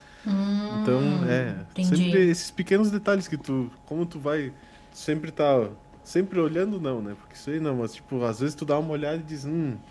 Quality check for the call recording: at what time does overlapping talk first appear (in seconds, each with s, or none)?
0.7 s